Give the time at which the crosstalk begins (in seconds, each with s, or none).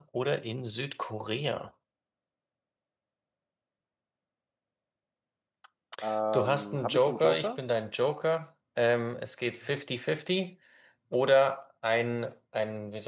6.3 s